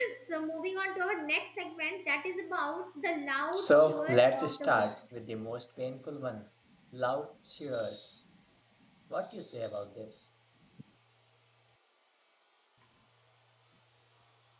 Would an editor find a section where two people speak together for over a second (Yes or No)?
Yes